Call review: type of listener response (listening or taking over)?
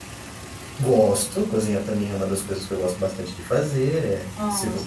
listening